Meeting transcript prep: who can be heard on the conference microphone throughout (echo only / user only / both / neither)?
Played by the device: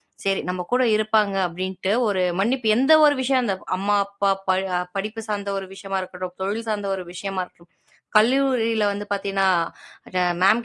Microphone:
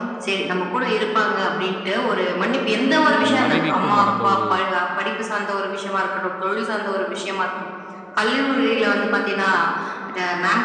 both